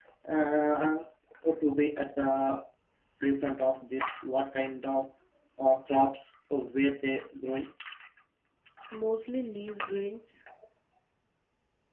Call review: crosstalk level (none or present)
none